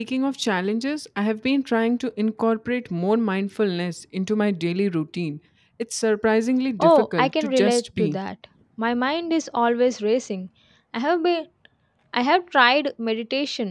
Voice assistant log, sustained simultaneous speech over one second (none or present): present